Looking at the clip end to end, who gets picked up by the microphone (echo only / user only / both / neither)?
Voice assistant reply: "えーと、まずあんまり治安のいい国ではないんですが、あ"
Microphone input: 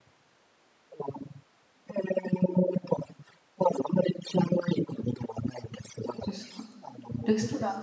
both